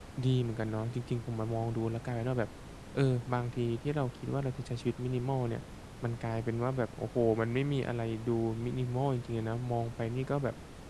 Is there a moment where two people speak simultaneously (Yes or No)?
No